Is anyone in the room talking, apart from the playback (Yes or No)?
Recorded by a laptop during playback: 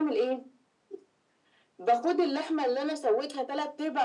No